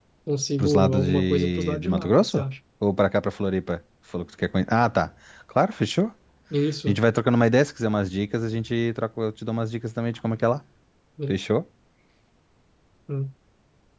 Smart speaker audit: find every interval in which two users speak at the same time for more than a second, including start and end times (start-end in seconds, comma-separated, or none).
0.6-2.4